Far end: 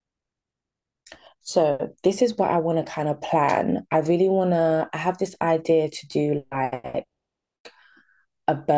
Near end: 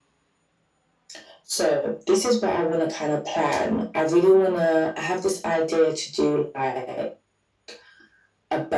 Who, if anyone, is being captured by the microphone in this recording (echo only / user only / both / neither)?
echo only